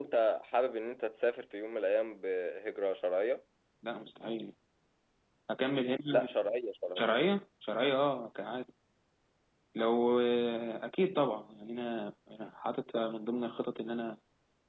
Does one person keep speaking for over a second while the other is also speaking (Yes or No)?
No